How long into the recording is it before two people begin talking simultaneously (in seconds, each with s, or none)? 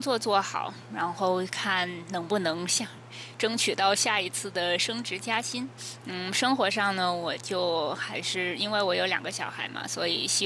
none